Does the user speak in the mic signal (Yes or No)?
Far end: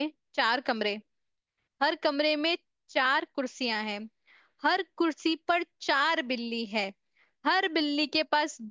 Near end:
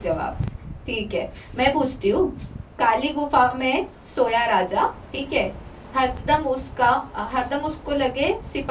Yes